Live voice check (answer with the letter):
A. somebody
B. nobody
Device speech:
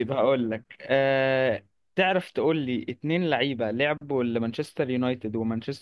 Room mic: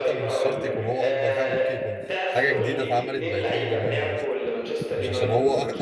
A